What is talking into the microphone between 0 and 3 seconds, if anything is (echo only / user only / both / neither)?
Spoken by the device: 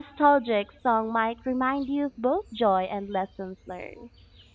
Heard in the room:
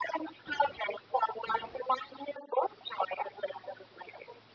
echo only